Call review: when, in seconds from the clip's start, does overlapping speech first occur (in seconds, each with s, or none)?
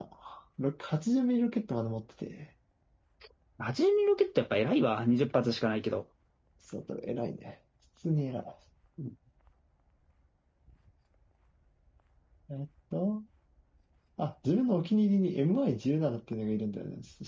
none